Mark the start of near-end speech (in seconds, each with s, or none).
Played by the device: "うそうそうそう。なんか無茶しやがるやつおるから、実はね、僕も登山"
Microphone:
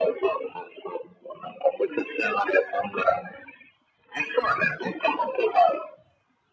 none